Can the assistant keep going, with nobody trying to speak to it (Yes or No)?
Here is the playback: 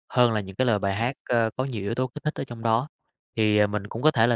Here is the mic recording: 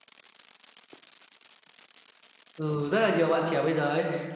No